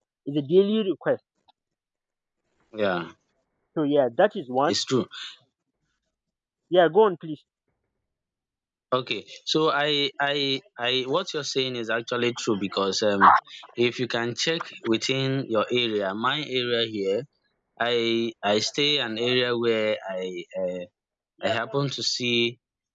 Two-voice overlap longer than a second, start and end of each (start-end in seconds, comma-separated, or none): none